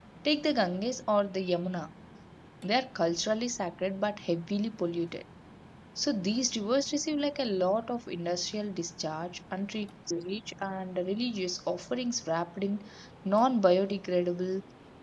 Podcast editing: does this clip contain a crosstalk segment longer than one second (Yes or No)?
No